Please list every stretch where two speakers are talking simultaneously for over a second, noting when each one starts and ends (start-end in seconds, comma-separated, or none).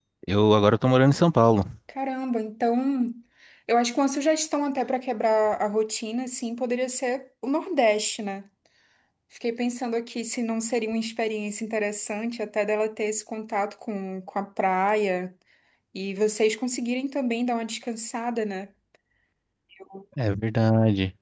none